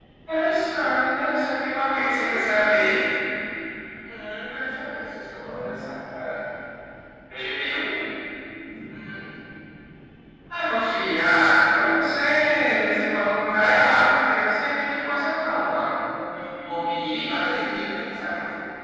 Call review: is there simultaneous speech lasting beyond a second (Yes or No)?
Yes